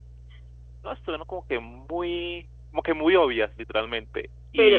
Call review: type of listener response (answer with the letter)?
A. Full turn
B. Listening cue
B